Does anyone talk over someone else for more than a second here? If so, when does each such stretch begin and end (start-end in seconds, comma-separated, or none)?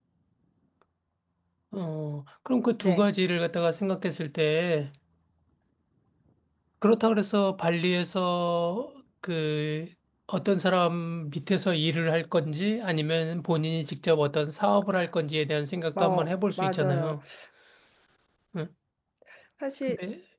15.9-17.2